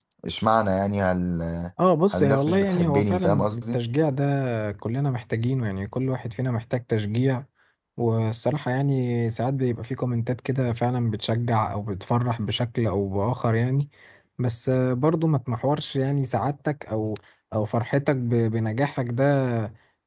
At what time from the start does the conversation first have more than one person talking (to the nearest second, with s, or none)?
2 s